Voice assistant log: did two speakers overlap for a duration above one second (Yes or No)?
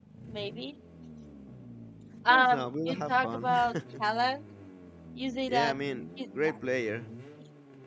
Yes